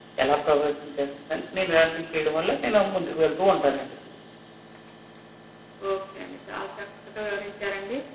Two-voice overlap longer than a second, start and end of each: none

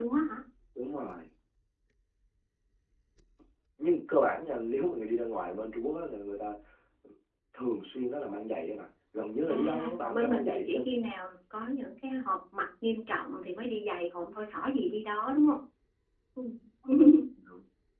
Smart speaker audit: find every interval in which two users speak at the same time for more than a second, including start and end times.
9.5-10.9

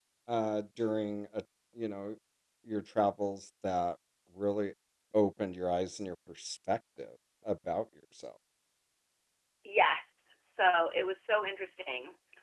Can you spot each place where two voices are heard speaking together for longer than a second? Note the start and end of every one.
none

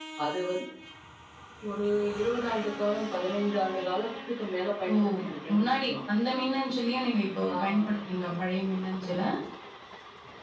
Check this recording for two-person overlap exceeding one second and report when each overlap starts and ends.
none

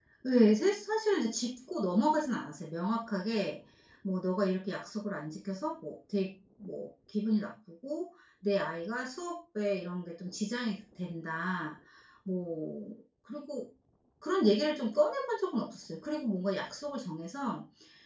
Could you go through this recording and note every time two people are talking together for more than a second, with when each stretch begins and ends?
none

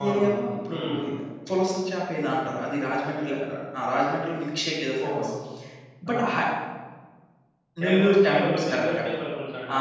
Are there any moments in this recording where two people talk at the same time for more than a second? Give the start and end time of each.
7.8-9.0

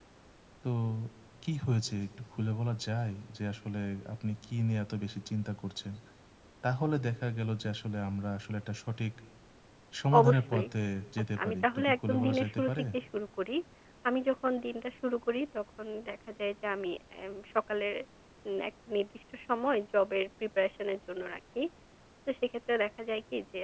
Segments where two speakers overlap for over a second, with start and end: 11.4-12.8

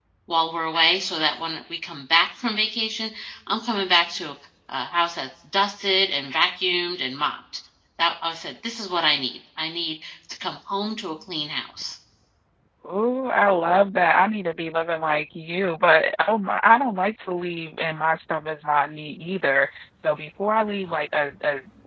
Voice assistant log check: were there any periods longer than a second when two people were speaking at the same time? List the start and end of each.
none

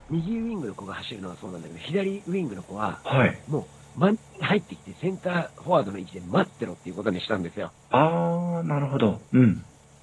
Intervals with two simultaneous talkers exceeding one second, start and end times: none

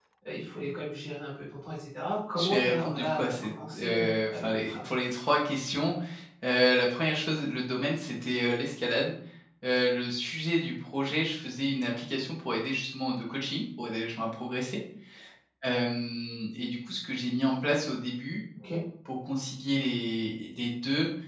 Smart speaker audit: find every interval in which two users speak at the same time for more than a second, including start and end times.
2.4-4.9

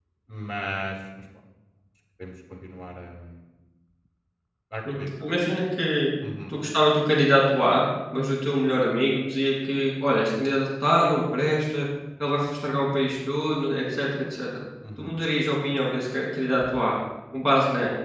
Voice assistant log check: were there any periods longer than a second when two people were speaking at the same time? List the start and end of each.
none

